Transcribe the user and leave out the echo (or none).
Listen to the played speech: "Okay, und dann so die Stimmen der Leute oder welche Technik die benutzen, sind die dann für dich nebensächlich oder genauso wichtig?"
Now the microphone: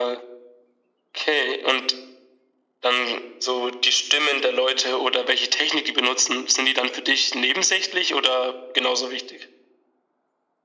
none